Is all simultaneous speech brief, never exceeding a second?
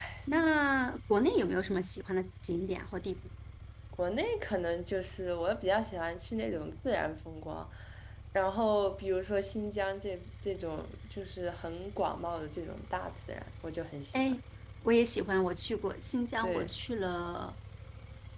Yes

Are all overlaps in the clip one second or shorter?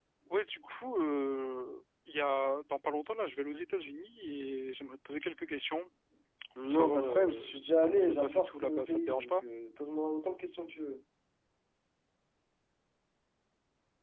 No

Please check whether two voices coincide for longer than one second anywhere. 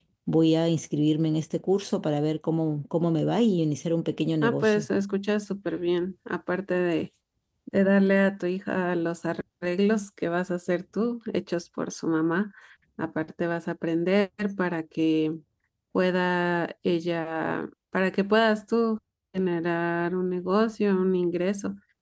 No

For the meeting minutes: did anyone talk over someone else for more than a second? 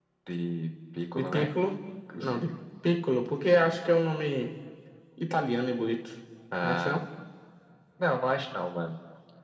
No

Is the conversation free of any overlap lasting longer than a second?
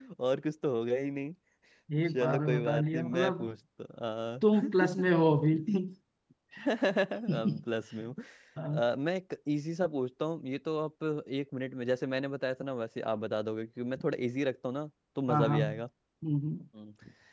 No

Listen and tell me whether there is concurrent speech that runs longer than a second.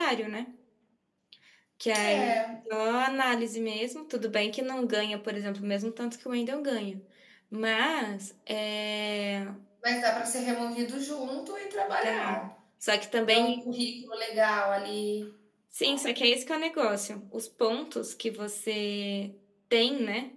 No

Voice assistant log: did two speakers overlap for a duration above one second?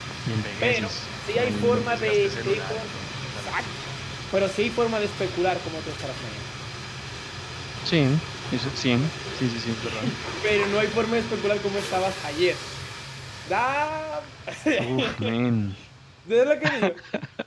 Yes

